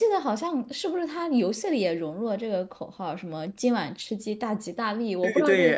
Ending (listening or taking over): taking over